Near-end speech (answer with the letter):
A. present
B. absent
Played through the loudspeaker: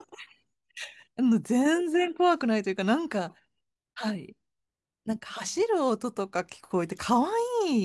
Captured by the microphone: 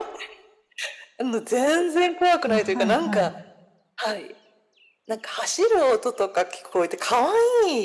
A